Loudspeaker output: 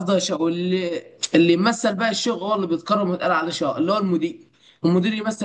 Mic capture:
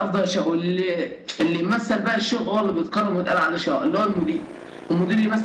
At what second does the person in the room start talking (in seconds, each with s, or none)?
none